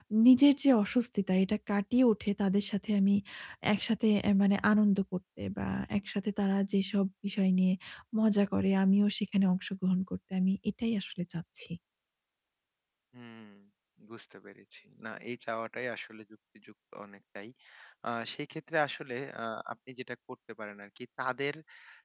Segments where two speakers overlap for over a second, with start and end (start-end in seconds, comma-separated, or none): none